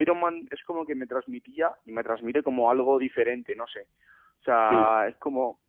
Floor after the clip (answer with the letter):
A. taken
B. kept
B